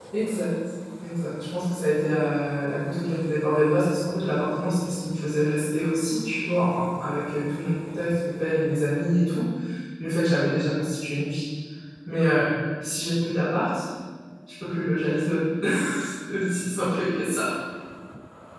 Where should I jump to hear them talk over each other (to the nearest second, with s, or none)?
none